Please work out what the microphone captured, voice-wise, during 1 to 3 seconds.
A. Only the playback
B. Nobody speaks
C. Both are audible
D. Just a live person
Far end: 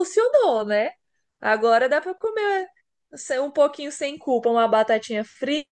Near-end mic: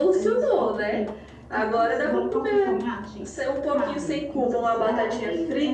C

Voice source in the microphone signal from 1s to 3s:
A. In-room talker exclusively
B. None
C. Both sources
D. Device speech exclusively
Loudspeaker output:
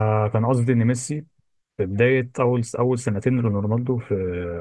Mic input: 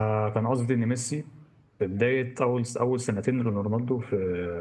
D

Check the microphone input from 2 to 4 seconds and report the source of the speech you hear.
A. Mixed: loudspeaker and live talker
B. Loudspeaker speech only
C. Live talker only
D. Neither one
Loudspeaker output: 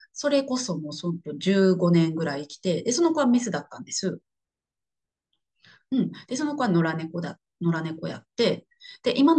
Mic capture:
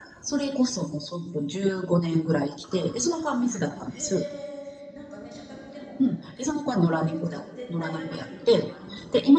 A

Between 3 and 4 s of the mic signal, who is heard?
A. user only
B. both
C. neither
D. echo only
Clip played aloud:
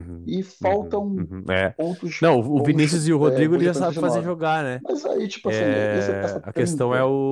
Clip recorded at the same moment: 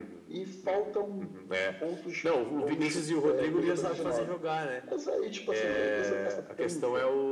D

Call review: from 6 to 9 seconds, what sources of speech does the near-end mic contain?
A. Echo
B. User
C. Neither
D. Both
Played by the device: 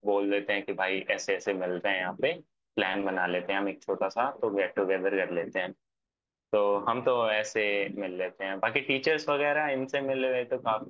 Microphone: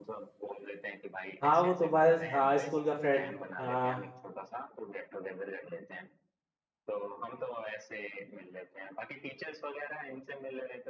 A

